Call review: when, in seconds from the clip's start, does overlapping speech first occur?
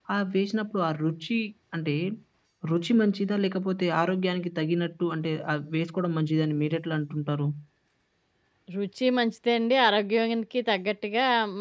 none

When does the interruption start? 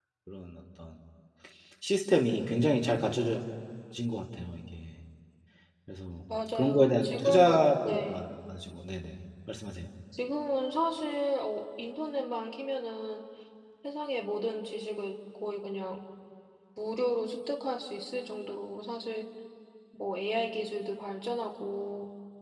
6.5 s

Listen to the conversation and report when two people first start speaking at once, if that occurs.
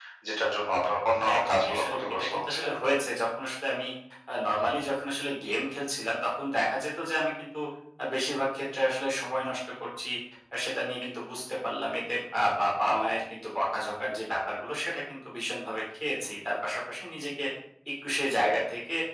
1.2 s

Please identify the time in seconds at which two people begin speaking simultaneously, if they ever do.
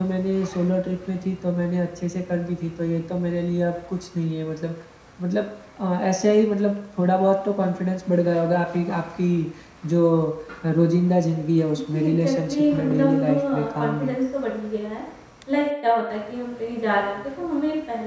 11.9 s

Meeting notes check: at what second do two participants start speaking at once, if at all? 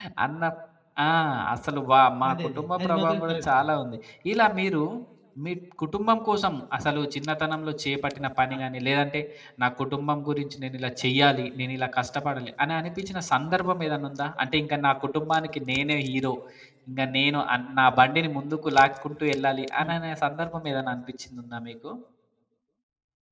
2.3 s

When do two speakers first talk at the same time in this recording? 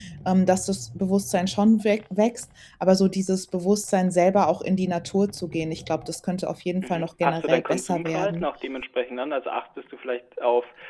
6.8 s

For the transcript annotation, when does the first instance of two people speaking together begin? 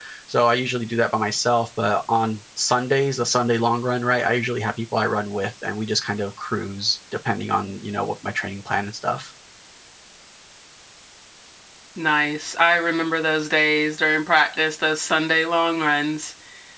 none

